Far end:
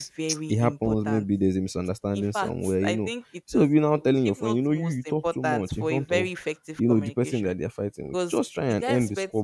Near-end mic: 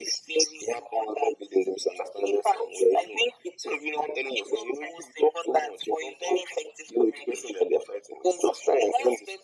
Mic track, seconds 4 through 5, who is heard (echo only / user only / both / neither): echo only